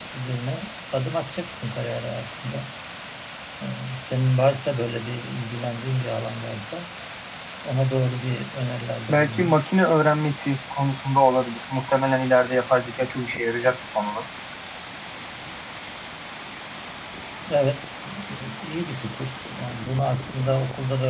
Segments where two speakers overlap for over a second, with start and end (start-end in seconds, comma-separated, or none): none